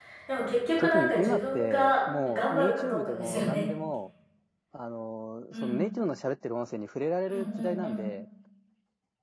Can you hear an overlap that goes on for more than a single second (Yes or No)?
Yes